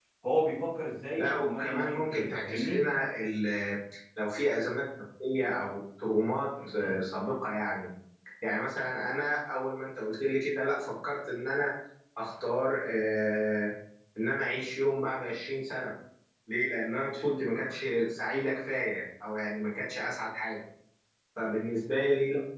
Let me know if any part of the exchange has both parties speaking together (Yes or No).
Yes